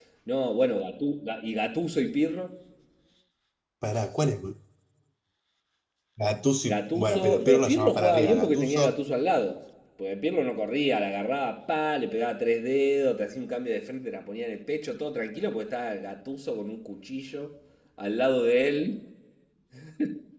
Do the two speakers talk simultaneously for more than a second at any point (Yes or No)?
Yes